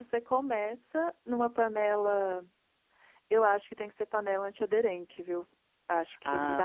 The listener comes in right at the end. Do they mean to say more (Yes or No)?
Yes